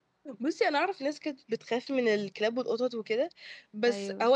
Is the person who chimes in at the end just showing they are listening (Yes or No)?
Yes